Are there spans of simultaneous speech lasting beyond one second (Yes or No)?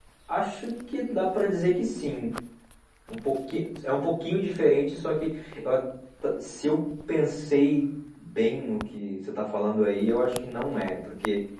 No